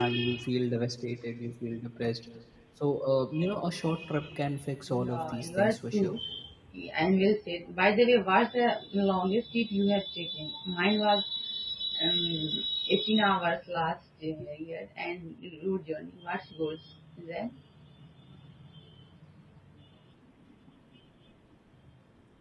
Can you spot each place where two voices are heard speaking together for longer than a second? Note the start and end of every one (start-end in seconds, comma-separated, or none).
4.9-6.1